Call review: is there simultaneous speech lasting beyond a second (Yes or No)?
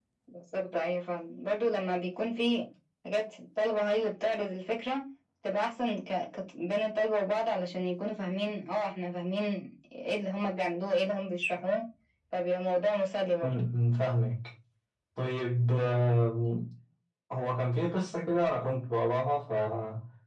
No